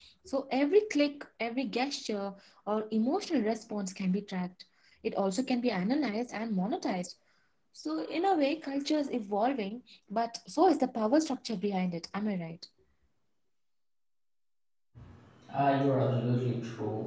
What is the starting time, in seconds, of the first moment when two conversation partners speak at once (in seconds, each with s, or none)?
none